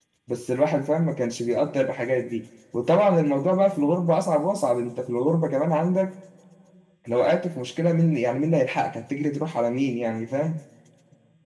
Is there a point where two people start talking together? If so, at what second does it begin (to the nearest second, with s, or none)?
none